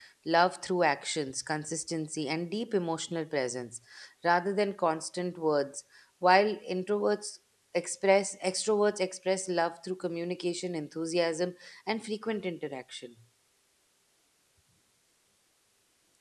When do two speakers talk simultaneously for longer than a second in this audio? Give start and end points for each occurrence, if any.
none

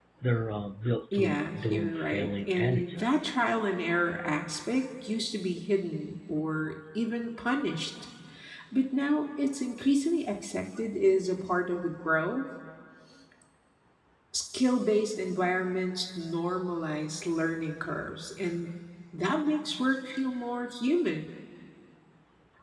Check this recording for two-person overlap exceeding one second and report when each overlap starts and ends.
1.1-3.3

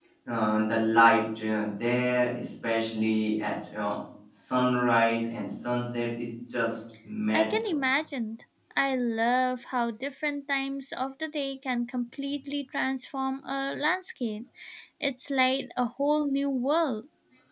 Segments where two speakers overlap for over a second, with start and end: none

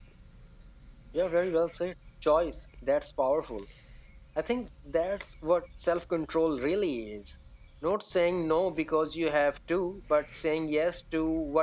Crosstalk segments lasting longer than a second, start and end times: none

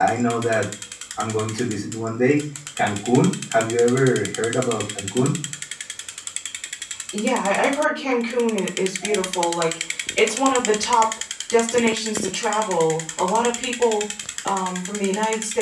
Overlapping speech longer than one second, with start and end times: none

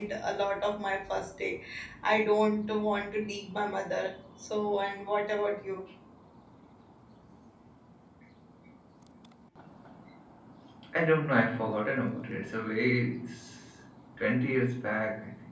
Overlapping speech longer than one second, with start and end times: none

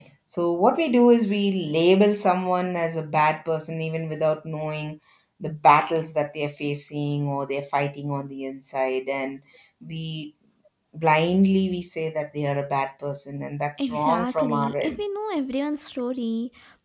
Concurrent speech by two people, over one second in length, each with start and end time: 13.8-15.0

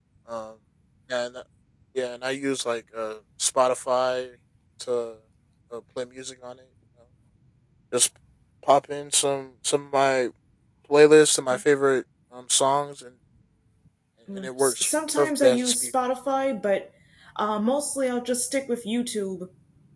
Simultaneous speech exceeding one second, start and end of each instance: 14.6-15.9

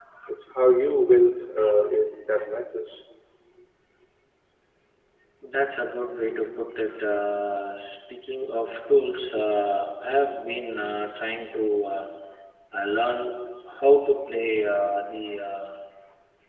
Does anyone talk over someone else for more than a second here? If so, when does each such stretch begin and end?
none

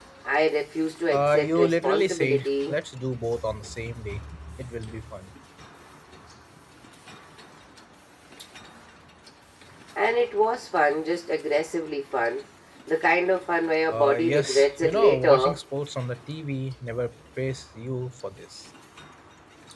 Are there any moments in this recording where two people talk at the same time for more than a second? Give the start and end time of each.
1.1-2.7, 13.9-15.6

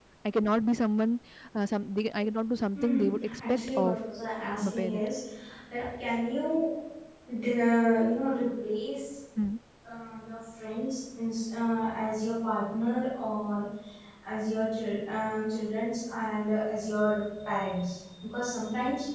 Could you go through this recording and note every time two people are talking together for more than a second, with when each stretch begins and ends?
2.8-4.0

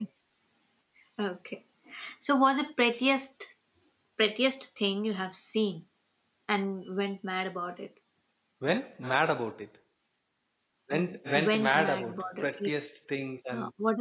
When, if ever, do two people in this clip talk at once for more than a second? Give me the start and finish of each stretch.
10.9-12.7

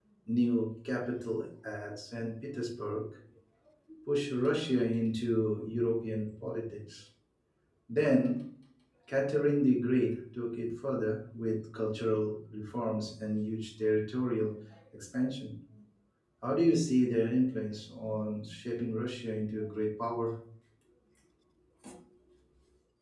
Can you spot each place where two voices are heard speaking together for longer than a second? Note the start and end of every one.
none

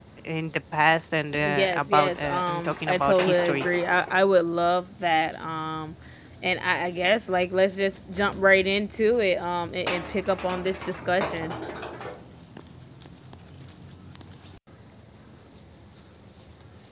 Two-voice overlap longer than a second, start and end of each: 1.4-3.7

